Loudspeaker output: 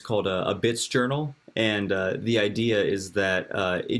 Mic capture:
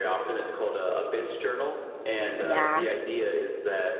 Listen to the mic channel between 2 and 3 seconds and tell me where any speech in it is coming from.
both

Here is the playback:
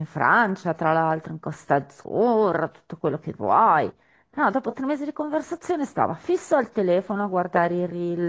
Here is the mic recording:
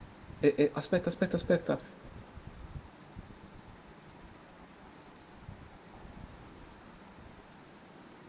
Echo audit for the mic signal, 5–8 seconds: neither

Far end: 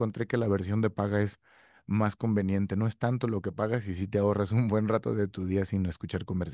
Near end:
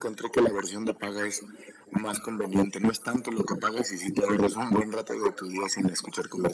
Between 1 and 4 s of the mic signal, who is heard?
echo only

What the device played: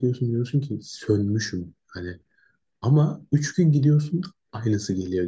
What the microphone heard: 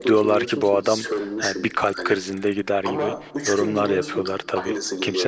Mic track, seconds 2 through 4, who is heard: both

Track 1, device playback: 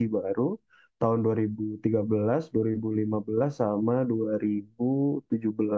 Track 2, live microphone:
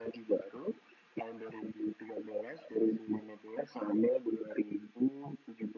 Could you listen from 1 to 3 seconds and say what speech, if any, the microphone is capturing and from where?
echo only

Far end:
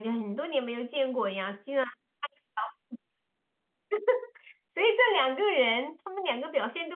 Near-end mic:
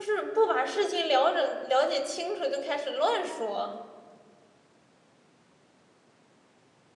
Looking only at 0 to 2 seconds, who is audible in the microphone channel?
user only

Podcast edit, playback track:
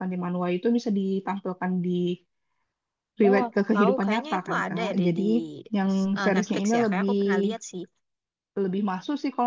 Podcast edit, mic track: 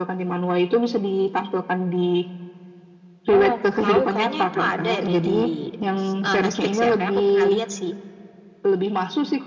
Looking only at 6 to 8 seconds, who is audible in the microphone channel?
echo only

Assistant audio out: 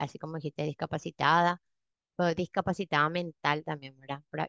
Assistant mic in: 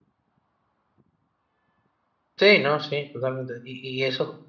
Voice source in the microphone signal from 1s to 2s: neither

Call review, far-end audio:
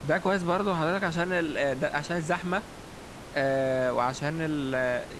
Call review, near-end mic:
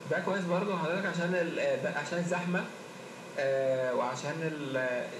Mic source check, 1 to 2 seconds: echo only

